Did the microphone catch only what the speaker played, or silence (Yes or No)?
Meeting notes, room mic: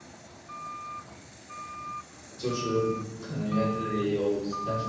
No